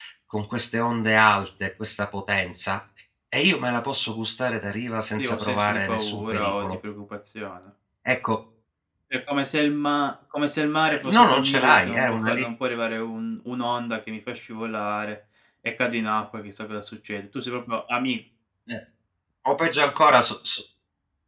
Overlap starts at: 5.2 s

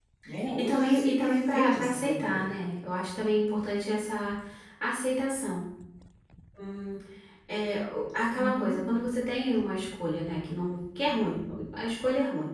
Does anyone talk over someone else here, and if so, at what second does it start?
0.6 s

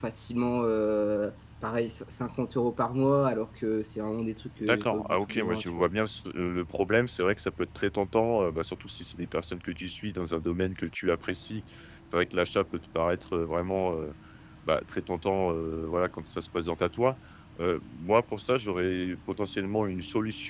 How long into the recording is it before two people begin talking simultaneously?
4.6 s

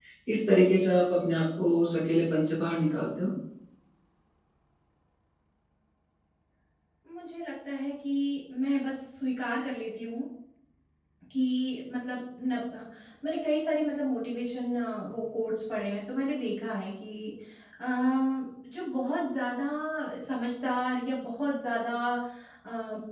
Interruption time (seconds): none

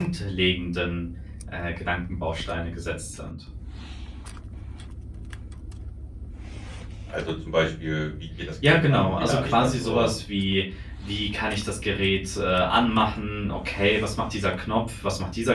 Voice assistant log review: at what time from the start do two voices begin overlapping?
8.6 s

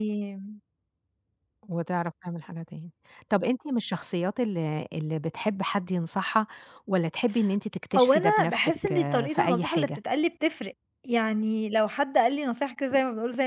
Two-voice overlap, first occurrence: 8.0 s

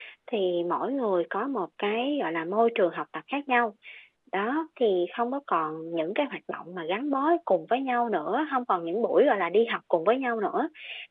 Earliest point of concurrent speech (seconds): none

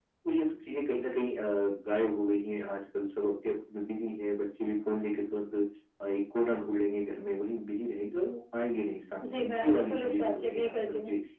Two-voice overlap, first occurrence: 9.2 s

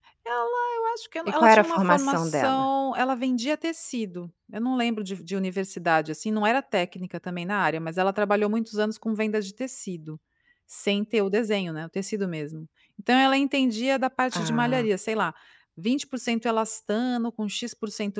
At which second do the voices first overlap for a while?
1.3 s

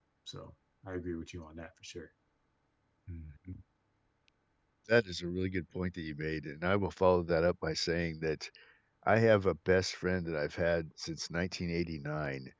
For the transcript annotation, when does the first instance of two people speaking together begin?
none

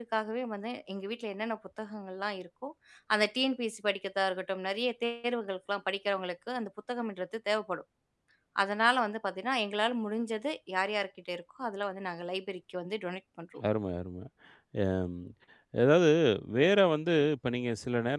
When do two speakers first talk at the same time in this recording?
none

